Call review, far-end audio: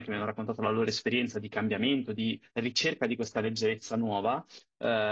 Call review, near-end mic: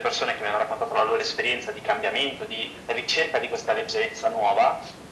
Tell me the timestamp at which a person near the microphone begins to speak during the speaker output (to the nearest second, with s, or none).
none